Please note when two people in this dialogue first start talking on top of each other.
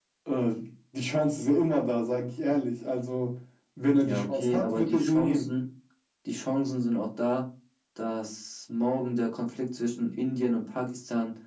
4 s

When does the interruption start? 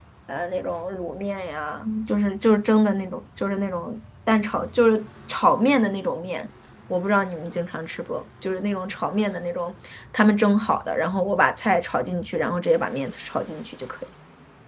none

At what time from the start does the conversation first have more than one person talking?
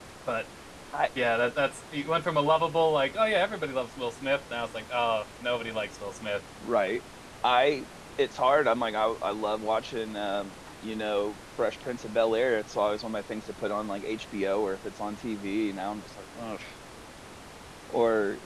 none

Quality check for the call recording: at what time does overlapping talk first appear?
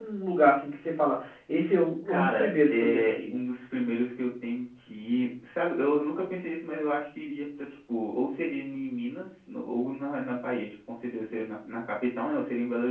2 s

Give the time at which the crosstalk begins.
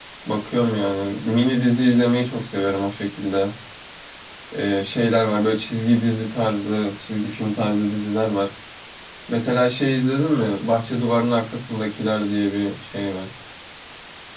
none

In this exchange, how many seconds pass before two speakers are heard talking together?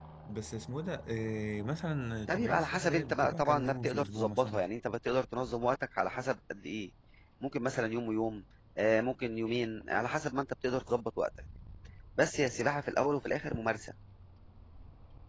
2 s

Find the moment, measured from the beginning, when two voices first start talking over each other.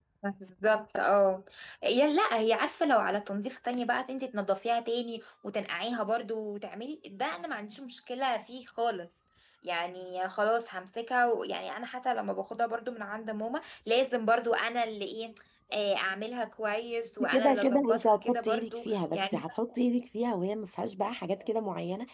17 s

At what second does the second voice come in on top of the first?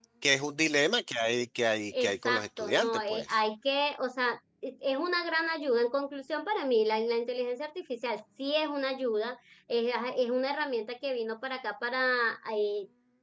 2 s

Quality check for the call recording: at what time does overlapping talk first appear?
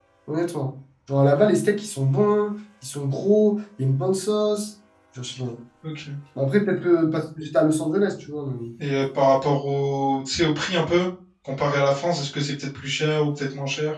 none

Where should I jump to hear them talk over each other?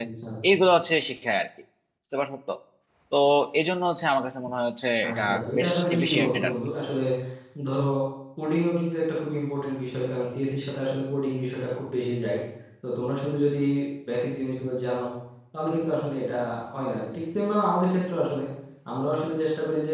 5 s

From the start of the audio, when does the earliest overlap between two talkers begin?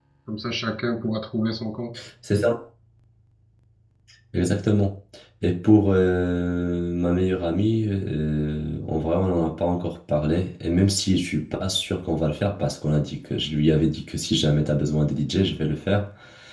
none

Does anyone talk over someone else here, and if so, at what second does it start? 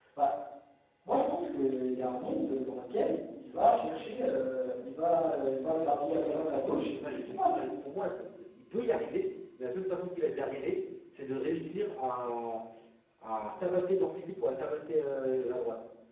6 s

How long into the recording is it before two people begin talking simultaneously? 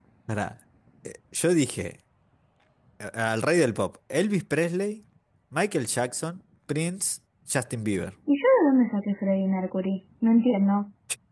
none

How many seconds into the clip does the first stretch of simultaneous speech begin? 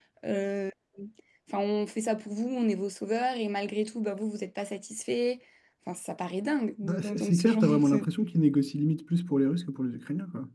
7 s

